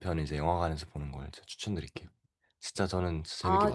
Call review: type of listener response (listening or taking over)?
taking over